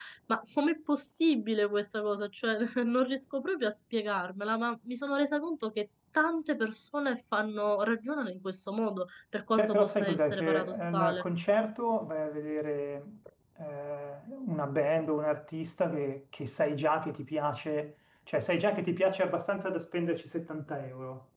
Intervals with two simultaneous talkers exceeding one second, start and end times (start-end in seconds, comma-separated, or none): 9.6-11.2